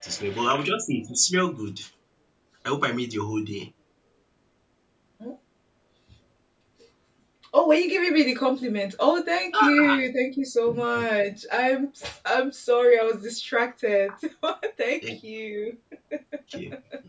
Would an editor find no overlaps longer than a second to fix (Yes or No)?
Yes